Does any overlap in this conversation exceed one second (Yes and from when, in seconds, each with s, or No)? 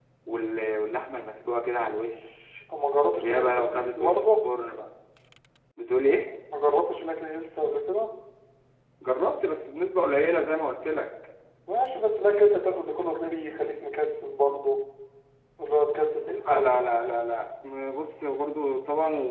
Yes, from 3.2 s